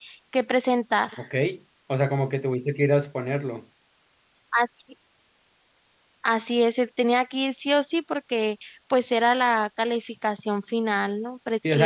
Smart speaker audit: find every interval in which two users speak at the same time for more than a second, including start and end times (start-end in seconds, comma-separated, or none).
none